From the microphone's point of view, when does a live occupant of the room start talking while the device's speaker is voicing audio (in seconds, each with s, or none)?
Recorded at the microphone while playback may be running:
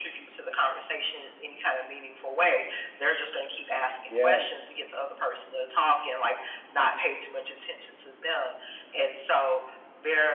4.0 s